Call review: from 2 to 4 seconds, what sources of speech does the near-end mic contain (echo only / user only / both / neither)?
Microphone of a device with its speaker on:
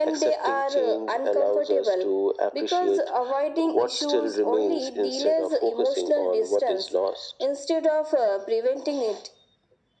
echo only